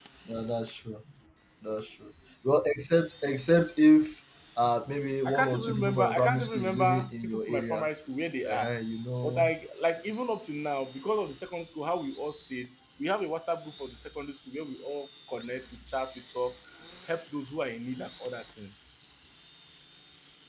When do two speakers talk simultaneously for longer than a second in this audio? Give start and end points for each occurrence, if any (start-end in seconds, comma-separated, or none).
5.2-7.9